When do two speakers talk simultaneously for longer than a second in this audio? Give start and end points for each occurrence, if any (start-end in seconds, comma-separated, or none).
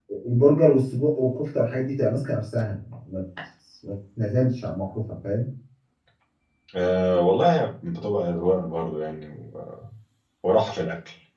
none